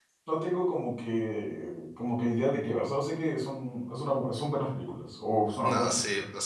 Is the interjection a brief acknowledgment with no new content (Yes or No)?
No